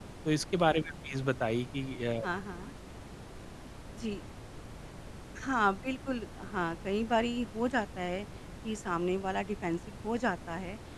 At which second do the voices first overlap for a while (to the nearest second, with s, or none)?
none